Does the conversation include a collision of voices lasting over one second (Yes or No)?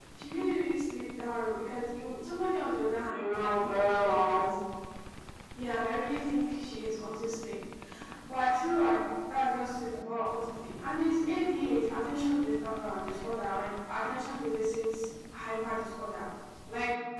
Yes